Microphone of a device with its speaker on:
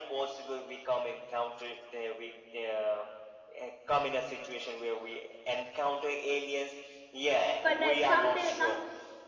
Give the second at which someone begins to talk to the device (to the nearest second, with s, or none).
8 s